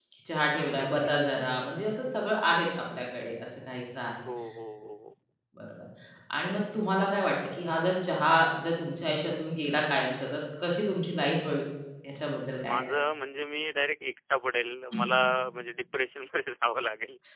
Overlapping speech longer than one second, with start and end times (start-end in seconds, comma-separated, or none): none